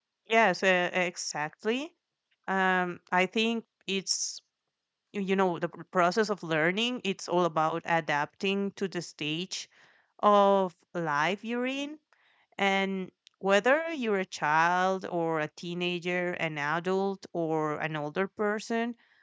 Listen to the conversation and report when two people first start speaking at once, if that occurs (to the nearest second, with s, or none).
none